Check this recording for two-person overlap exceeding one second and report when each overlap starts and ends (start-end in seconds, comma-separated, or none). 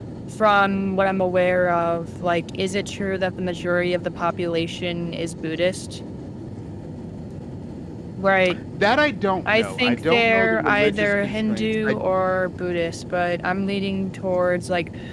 9.5-12.0